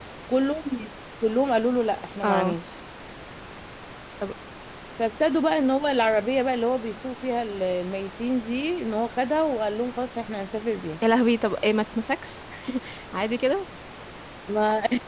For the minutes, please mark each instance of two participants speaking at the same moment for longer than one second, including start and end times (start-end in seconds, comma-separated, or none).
none